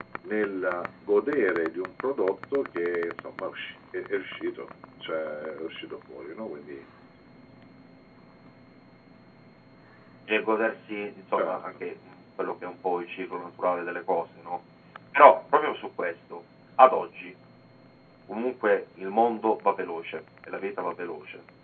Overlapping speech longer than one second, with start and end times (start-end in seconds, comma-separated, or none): none